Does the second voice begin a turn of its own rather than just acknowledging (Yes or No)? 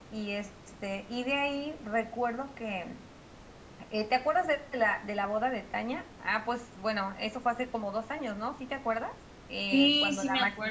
Yes